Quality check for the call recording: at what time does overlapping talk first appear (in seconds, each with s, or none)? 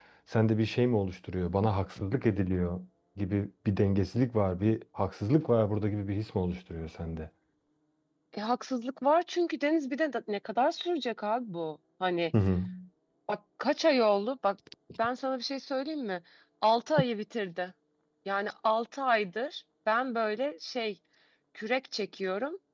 none